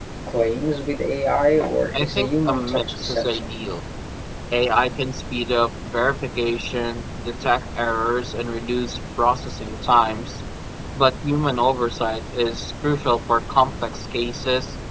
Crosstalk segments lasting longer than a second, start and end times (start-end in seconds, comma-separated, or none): 1.9-3.5